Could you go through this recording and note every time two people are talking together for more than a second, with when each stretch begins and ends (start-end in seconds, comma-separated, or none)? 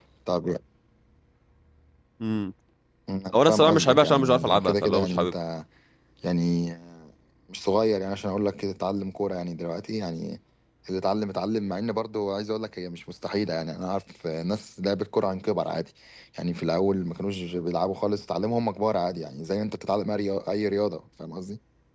3.3-5.3